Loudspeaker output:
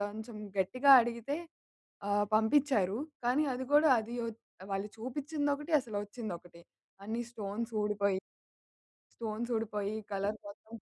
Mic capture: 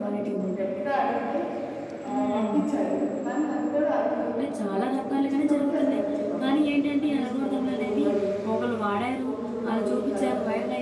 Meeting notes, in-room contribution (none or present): present